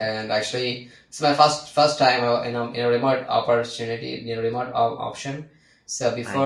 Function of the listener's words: listening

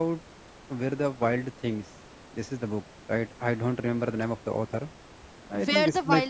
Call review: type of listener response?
taking over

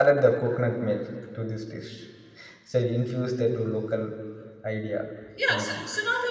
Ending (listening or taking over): taking over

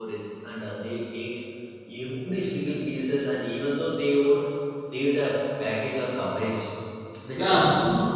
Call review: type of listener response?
taking over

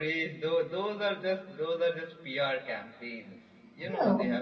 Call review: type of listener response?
listening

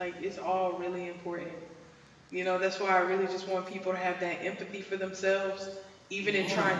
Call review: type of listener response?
listening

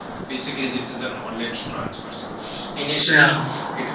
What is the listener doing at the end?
listening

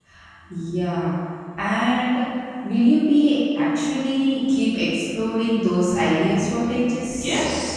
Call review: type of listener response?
taking over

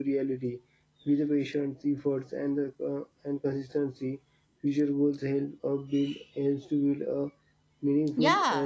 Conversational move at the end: taking over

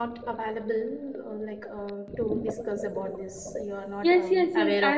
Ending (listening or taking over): taking over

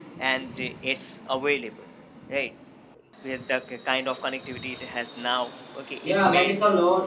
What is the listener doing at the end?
taking over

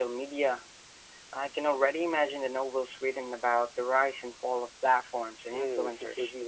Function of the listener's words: taking over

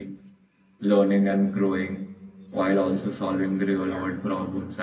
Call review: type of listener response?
listening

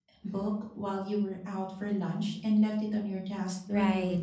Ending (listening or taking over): taking over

